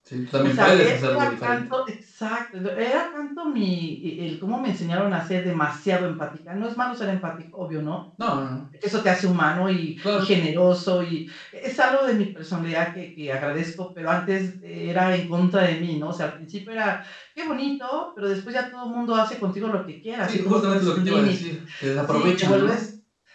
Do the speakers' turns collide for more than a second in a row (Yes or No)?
Yes